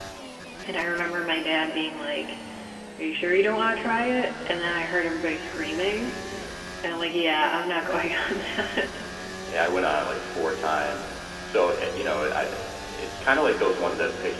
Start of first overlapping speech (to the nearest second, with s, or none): none